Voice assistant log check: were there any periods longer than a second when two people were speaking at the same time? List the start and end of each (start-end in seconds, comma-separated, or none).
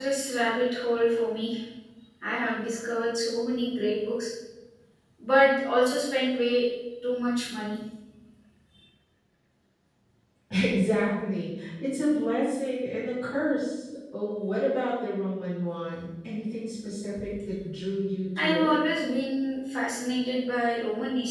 none